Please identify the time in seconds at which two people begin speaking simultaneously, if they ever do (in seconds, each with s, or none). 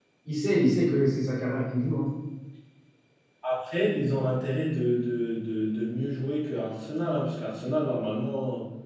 none